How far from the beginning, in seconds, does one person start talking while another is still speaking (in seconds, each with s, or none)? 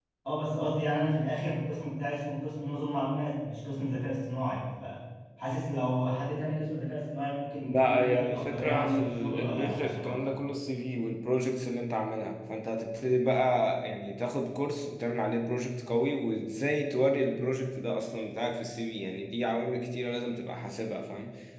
7.6 s